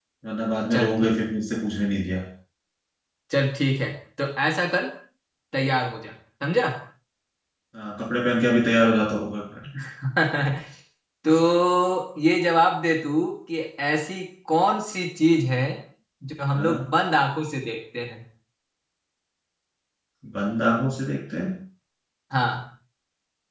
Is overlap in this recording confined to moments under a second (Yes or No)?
Yes